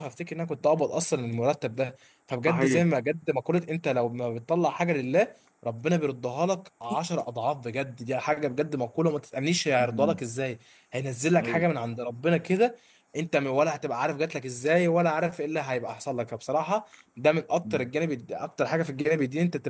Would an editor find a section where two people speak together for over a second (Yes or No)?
No